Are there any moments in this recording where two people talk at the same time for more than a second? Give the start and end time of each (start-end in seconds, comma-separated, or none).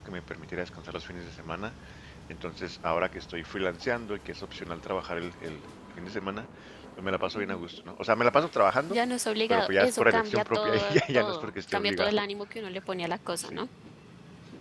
9.5-12.2